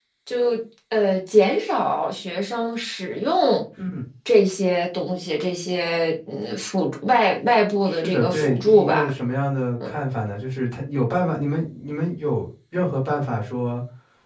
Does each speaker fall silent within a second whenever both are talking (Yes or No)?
No